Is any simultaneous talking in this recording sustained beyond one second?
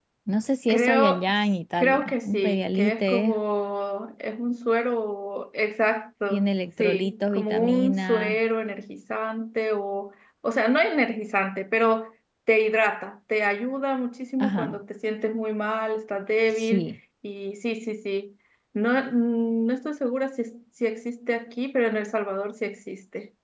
Yes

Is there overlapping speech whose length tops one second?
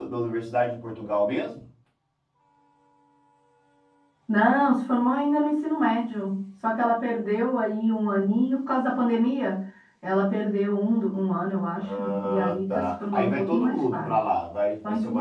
Yes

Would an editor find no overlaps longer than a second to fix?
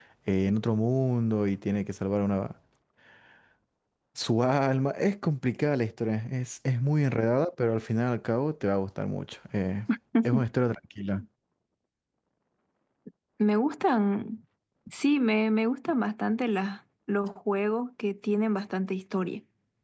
Yes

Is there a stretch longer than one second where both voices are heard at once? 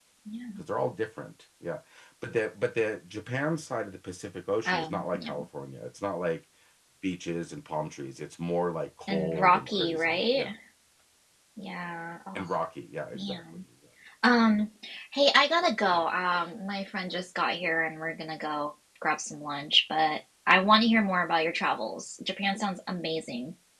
Yes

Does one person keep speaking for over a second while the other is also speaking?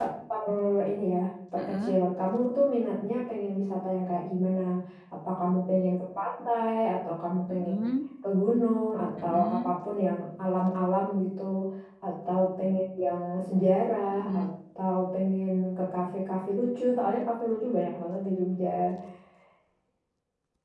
No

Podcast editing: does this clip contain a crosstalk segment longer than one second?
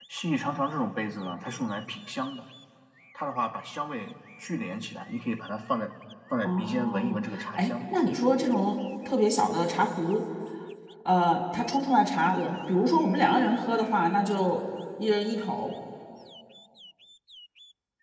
Yes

